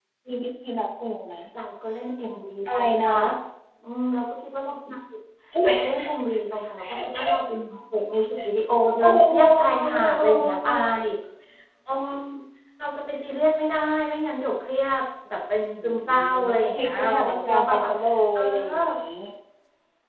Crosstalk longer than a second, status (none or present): present